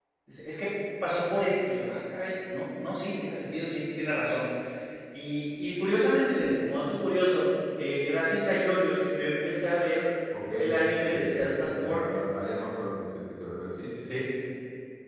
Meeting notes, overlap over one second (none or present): present